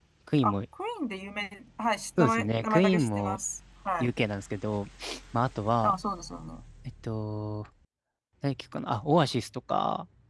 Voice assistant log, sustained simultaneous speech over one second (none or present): present